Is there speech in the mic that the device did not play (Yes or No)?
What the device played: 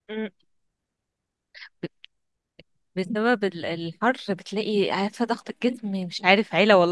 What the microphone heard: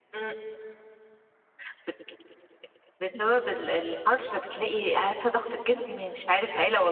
No